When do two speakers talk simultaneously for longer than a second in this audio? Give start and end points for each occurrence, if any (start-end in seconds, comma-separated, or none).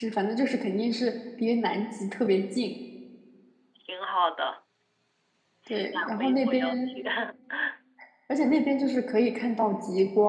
5.7-6.9